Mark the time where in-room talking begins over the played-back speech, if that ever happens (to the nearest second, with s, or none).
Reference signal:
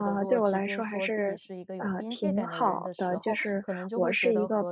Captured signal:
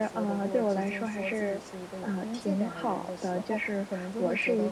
none